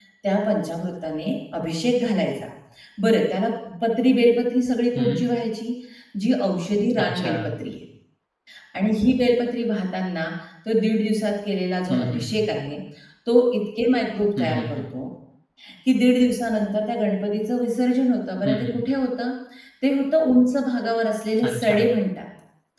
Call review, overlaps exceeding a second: none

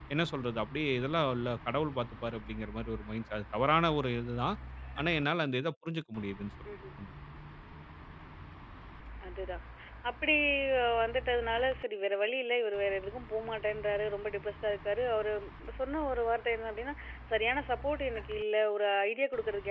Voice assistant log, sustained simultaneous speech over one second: none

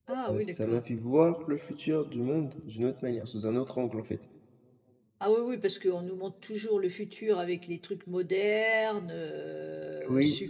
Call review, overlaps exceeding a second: none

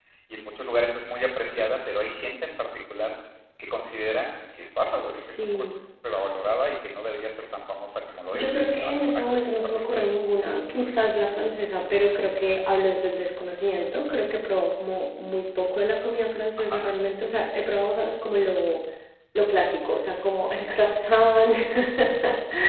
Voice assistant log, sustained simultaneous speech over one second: present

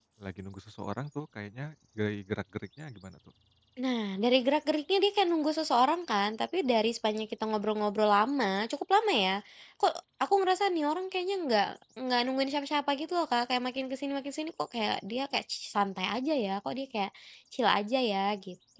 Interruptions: none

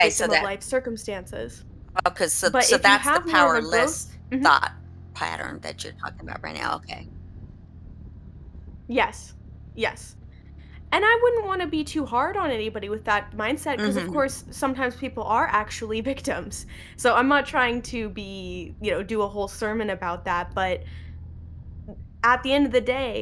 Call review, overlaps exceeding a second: present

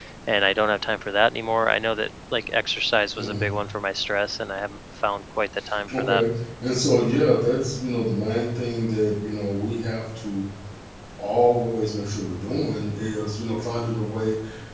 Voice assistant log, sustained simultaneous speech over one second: none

